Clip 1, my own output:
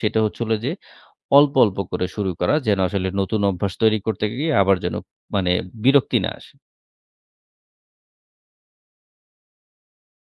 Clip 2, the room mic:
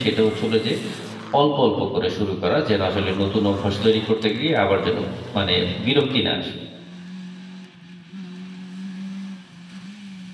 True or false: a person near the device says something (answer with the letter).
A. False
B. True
A